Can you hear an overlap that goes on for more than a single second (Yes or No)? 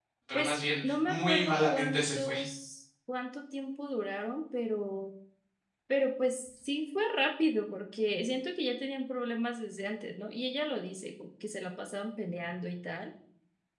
Yes